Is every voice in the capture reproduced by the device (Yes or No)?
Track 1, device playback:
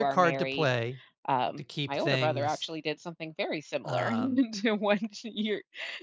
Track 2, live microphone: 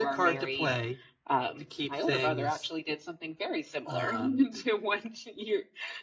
Yes